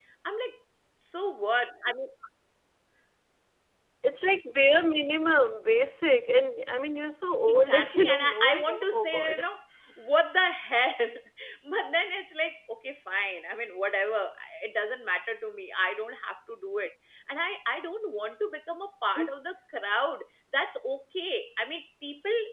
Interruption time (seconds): 7.5 s

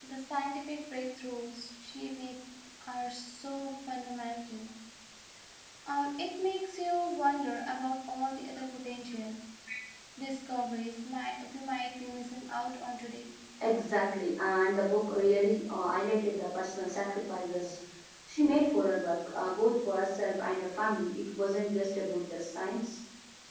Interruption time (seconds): none

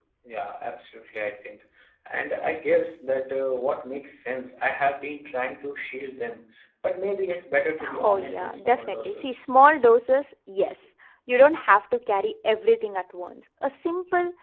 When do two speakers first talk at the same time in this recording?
7.8 s

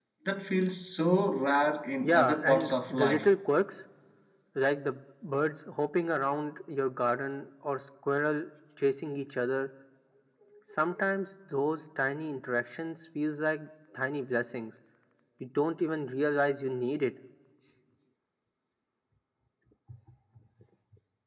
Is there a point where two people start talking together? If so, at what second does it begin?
2.0 s

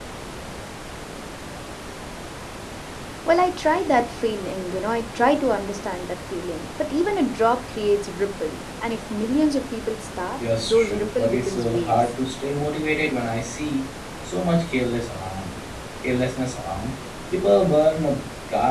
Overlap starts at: 10.4 s

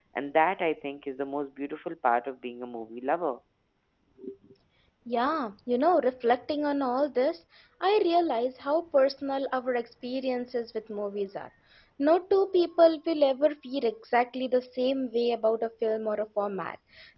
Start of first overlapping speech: none

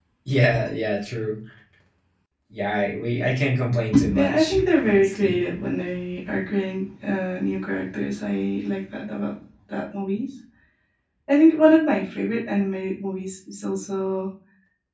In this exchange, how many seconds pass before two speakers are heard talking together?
3.9 s

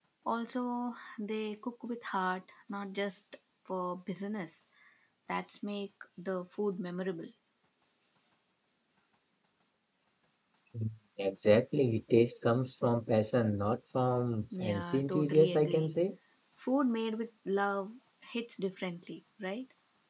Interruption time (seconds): 14.5 s

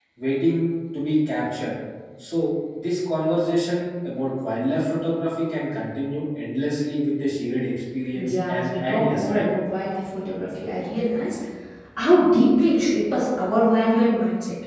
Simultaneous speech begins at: 8.2 s

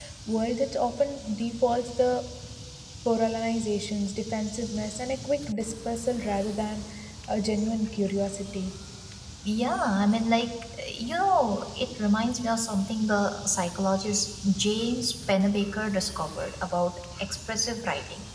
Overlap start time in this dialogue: none

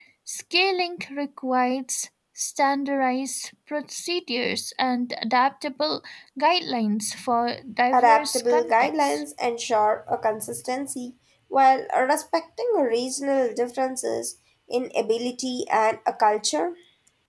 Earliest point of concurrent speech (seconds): 7.9 s

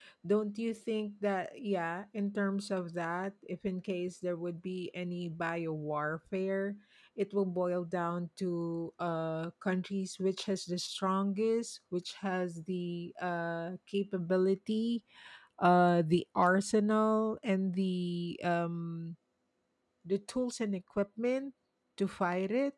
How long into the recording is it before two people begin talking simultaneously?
none

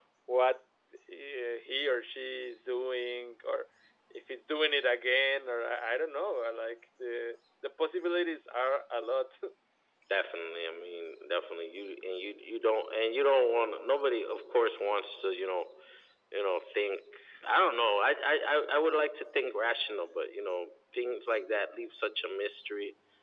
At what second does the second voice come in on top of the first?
none

